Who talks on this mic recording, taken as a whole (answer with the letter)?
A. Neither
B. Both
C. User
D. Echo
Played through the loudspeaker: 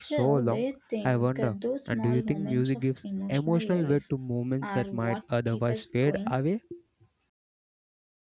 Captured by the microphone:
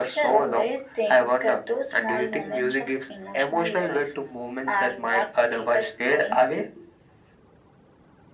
D